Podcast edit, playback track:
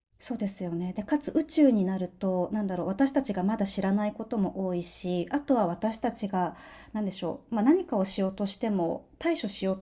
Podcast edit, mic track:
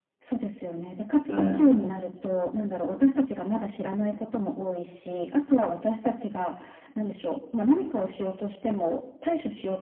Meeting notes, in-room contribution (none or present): present